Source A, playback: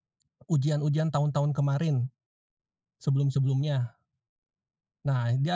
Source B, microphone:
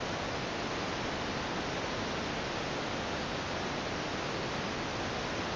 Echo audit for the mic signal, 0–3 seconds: neither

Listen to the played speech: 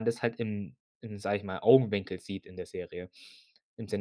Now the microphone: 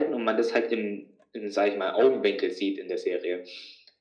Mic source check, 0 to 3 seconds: echo only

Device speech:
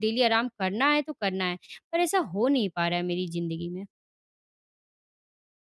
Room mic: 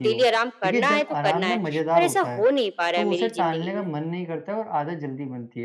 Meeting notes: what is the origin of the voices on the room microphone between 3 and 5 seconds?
both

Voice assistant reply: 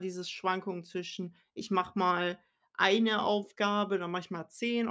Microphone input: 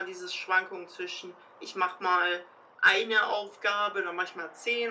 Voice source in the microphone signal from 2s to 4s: echo only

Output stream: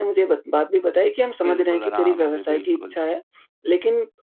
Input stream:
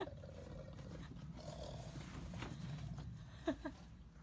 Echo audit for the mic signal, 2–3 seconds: neither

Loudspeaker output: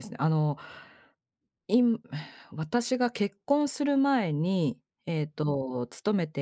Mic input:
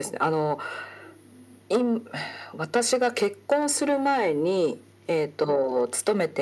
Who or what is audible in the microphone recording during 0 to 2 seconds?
echo only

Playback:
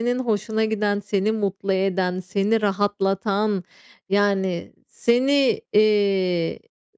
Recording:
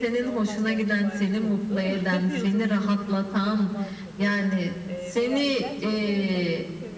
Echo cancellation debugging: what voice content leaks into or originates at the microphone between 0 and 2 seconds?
both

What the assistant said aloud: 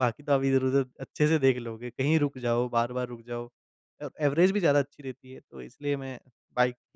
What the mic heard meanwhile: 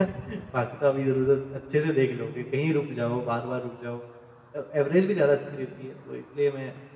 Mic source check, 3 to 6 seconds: echo only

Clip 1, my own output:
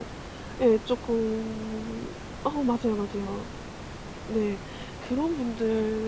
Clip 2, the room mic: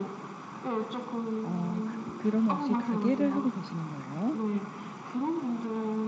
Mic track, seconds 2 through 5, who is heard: both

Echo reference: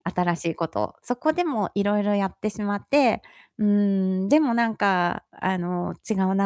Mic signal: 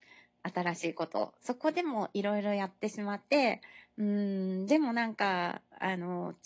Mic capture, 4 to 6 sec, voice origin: echo only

